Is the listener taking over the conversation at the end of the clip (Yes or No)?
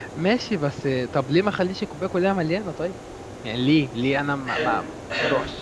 Yes